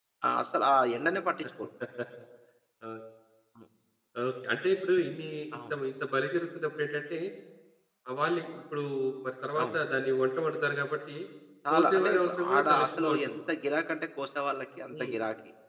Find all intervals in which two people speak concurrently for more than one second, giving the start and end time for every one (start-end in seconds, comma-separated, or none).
11.7-13.4